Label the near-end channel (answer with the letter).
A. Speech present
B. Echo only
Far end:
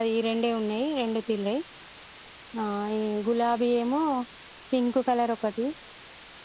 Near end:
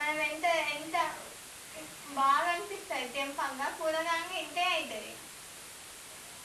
A